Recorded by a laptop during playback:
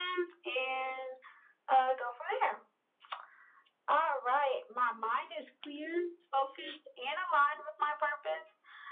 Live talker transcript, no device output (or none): none